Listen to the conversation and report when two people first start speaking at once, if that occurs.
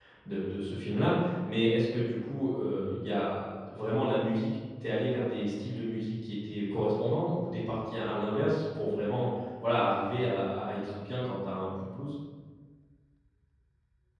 none

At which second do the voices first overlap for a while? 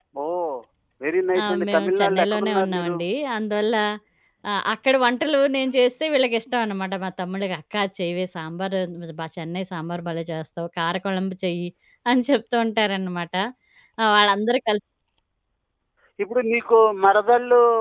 1.4 s

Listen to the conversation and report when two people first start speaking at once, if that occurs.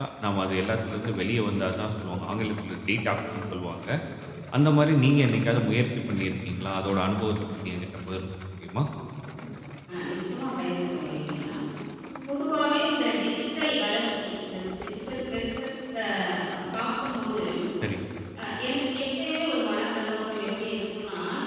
none

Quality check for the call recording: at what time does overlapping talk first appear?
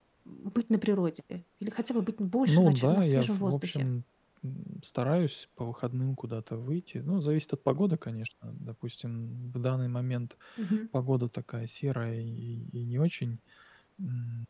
2.5 s

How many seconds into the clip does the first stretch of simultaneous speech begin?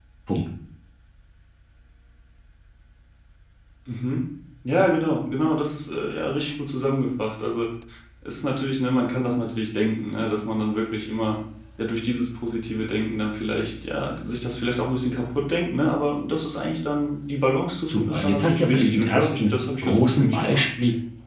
17.9 s

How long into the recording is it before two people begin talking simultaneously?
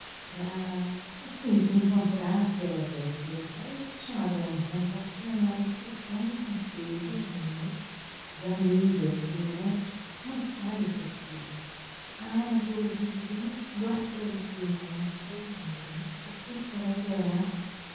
none

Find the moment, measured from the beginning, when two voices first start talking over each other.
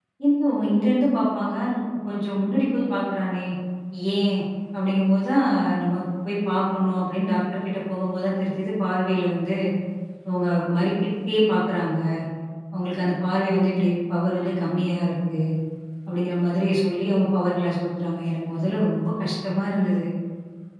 none

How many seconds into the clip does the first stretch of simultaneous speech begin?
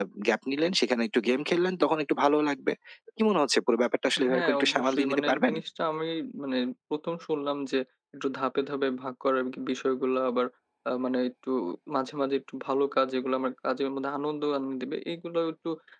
4.2 s

